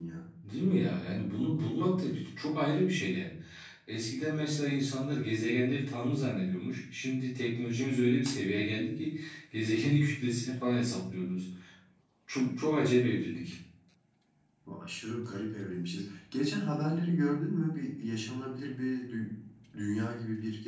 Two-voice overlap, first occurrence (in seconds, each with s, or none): none